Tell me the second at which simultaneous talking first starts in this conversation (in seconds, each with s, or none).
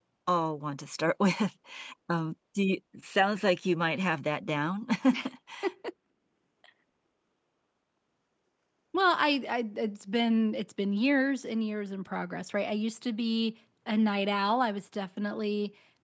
none